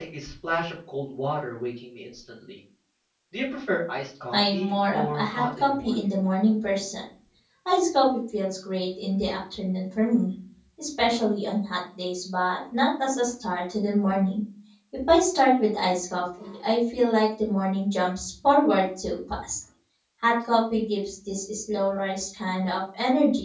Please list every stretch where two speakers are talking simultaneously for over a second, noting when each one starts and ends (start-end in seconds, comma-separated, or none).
4.3-5.9